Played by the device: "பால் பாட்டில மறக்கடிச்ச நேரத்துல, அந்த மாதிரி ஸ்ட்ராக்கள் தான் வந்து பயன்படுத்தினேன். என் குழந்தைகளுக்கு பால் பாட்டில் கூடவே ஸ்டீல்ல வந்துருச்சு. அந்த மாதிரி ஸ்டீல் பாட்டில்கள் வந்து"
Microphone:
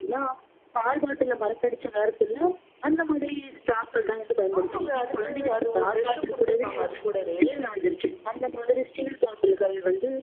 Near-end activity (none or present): present